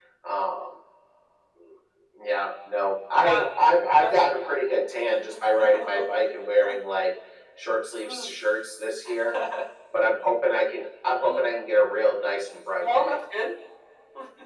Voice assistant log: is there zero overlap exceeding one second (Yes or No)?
No